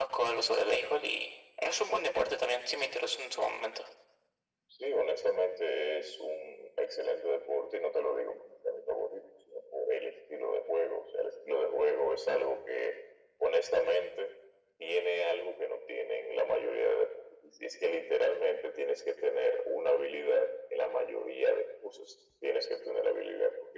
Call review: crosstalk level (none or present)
none